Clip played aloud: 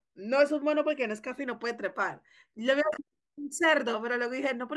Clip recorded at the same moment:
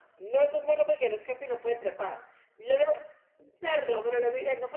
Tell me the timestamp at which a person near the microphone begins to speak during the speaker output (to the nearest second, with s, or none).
none